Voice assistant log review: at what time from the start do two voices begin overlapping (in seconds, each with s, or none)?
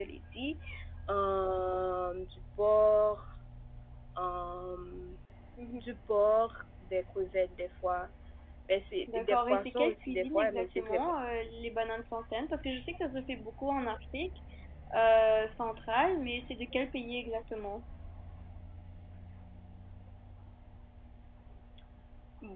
9.1 s